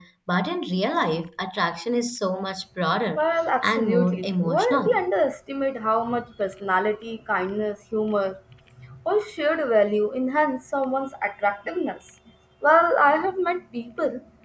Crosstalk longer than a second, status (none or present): present